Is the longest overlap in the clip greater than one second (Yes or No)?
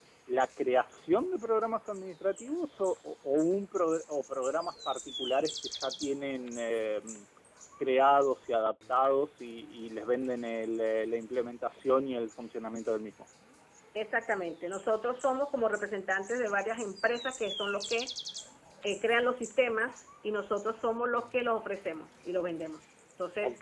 No